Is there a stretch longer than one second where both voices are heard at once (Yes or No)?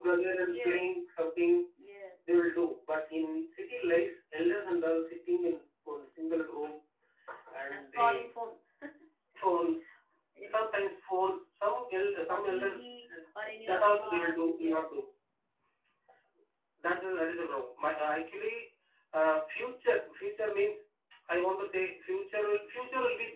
Yes